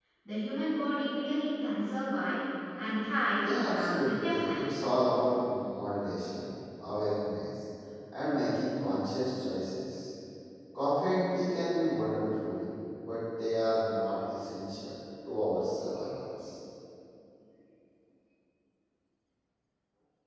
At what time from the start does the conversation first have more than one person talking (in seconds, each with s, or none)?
3.4 s